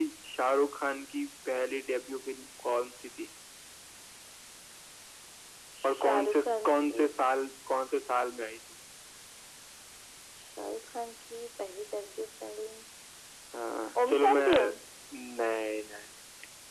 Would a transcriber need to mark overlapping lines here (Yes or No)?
Yes